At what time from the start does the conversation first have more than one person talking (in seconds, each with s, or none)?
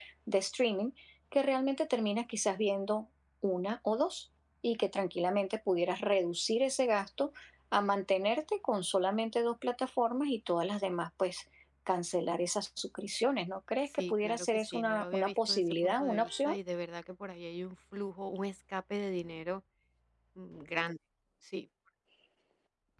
13.9 s